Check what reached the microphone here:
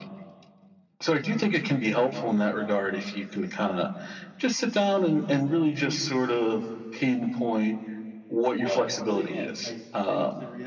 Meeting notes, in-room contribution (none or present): present